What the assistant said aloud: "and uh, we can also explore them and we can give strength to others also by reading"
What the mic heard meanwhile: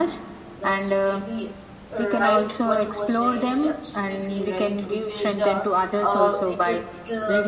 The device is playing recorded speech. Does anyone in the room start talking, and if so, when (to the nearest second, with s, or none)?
1 s